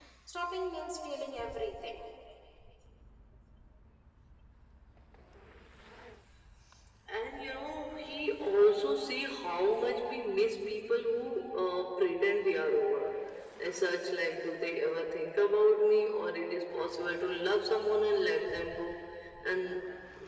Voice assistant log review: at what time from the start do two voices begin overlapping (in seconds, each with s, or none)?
none